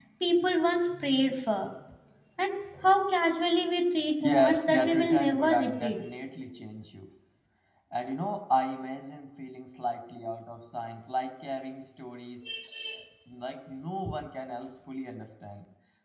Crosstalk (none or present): present